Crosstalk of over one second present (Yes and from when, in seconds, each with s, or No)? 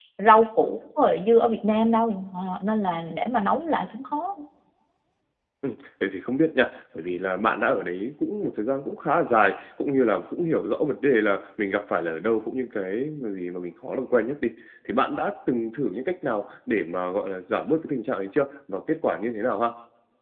No